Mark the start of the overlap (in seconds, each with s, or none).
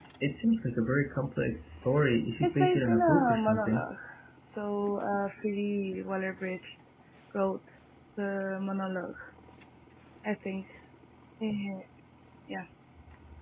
2.4 s